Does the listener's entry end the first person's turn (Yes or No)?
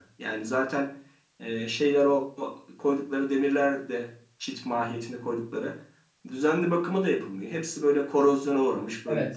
Yes